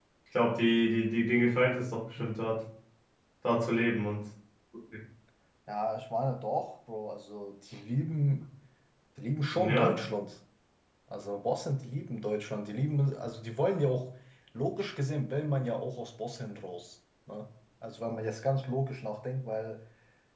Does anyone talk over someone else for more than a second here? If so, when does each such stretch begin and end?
none

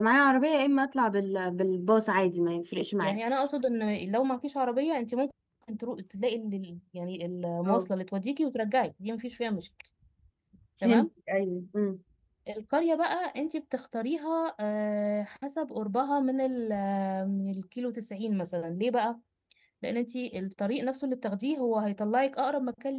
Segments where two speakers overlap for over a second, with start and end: none

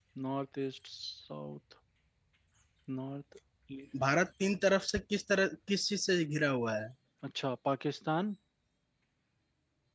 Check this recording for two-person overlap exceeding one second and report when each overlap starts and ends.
none

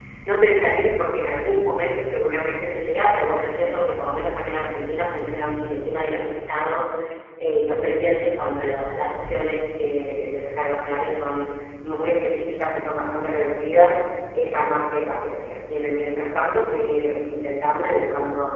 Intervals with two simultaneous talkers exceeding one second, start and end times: none

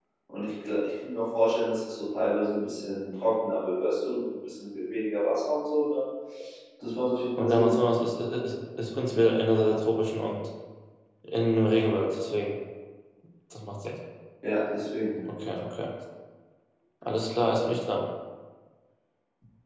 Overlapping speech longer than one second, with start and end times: none

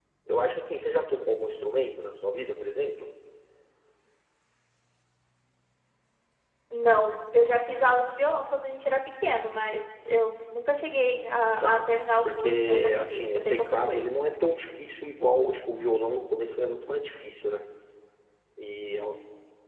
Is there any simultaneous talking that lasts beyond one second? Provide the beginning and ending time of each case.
12.2-14.1

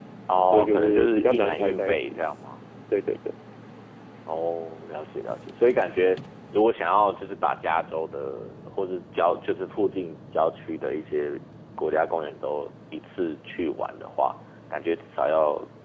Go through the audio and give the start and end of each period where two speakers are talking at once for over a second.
0.5-2.0

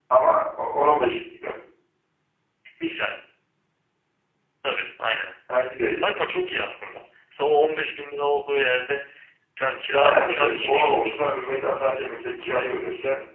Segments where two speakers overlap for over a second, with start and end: 10.0-11.3

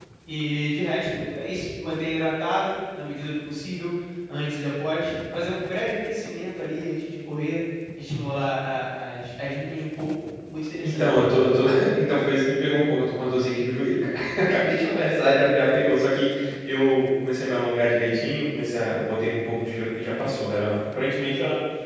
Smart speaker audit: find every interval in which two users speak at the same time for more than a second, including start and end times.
none

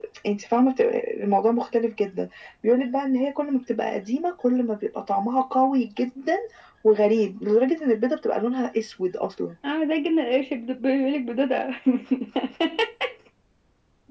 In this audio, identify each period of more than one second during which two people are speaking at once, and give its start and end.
none

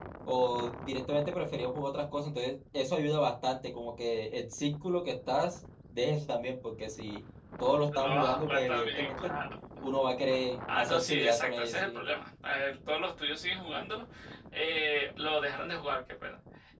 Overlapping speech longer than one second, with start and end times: 7.9-9.4, 10.7-12.0

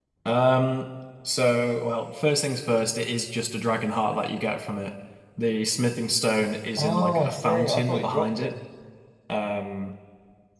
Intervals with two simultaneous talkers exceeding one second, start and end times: 6.8-8.5

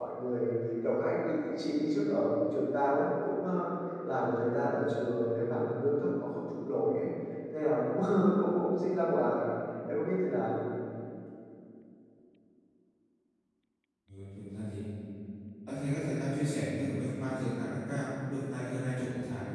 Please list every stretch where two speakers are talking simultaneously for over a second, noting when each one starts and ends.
none

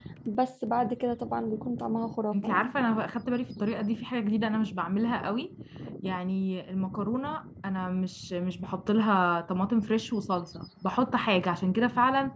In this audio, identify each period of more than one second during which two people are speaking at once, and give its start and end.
none

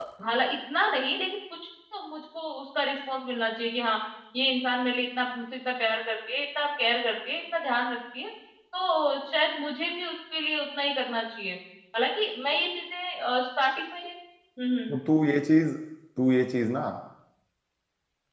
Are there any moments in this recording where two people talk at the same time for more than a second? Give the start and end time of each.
none

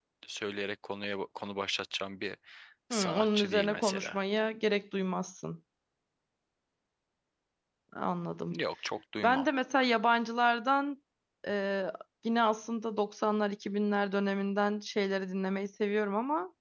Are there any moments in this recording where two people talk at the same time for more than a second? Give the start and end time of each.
2.9-4.2

